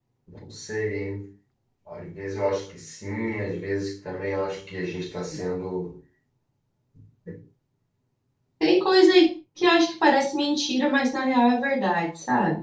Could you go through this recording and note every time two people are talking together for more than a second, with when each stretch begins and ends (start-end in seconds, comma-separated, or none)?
none